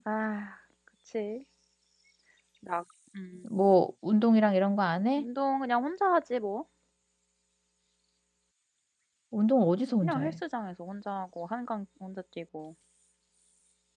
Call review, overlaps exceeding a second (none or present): none